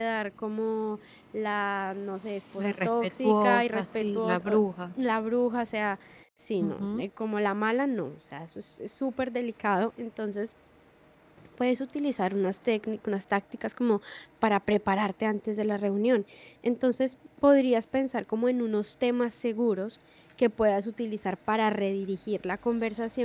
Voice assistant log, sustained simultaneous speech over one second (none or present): present